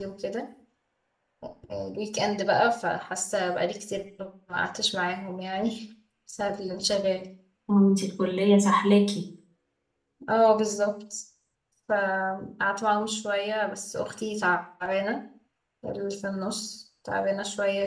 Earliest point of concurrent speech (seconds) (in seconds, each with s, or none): none